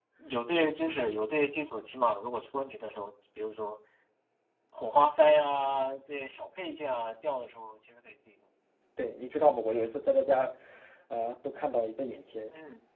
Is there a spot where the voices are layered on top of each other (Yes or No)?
No